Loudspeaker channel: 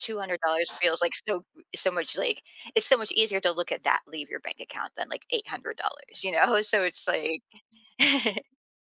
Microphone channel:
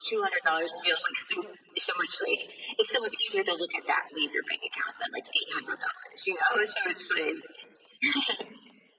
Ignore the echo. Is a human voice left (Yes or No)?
No